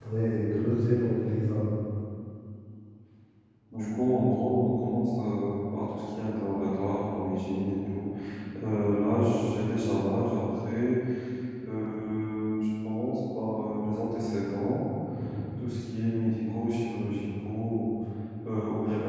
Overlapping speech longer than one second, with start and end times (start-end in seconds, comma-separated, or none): none